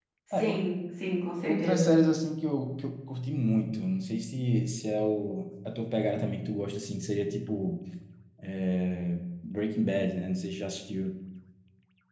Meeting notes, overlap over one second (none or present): none